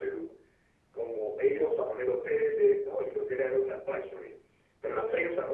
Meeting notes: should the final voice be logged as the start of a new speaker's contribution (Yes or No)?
No